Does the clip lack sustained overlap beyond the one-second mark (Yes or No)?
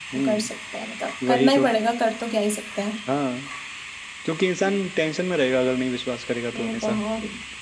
Yes